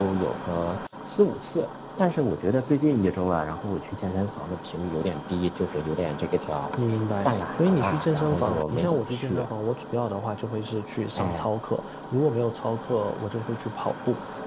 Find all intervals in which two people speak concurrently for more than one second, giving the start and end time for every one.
7.2-9.4

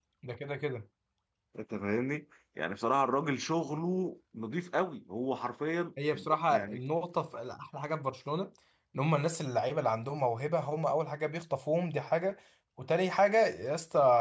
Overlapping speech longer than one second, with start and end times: none

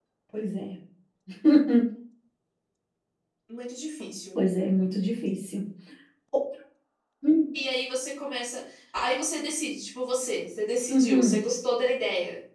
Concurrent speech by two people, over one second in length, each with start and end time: none

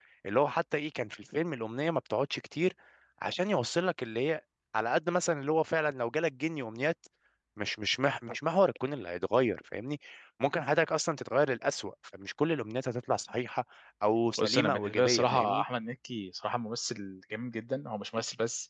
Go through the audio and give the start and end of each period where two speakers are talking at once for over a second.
14.4-15.6

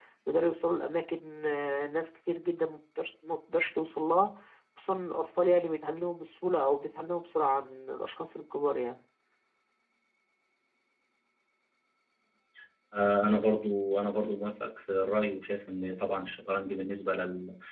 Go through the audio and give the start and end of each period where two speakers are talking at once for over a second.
none

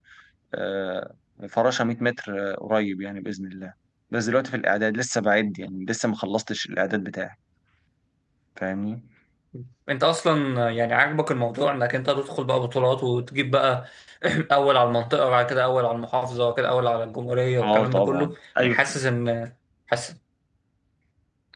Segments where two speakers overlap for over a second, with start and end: 17.6-18.9

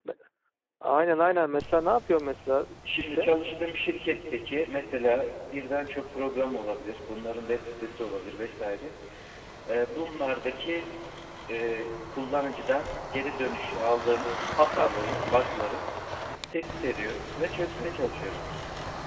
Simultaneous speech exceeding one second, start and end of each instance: none

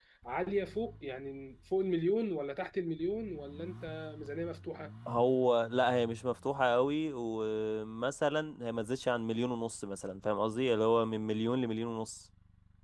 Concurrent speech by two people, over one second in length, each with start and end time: none

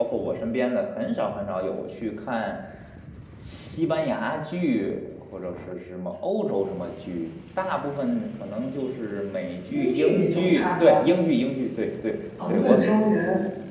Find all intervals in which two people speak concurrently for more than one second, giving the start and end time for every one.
9.7-11.1

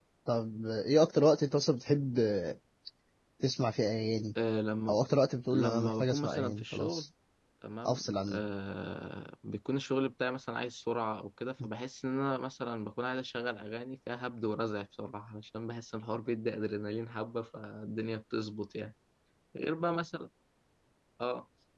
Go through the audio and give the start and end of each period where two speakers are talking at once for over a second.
5.5-7.1

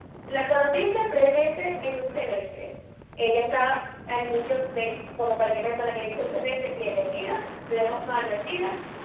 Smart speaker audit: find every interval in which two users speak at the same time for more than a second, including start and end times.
none

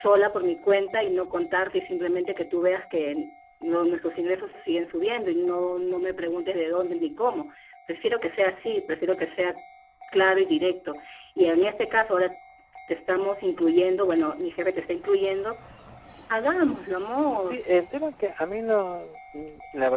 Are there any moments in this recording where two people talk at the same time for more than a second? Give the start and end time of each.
none

